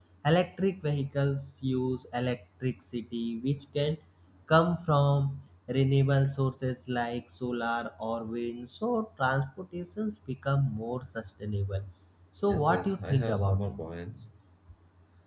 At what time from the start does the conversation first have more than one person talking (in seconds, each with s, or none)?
12.5 s